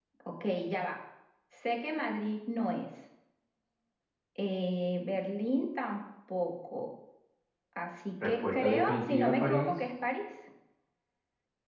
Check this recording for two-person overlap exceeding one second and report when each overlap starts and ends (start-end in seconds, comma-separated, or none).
8.2-9.8